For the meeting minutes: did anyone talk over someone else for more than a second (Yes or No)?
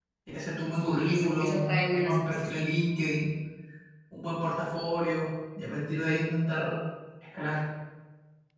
Yes